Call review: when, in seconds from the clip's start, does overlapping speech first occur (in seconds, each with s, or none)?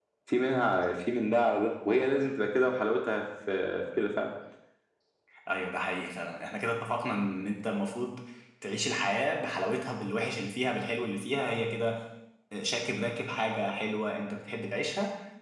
none